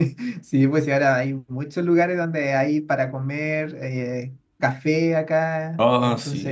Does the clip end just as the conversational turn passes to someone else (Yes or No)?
No